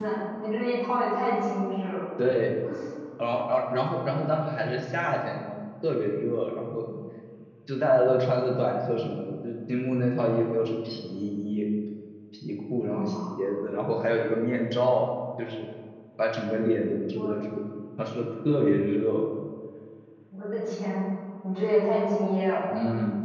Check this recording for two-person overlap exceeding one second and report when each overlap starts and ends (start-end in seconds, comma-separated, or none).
none